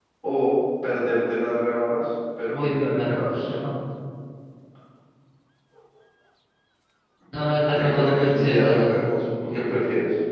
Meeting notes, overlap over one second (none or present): present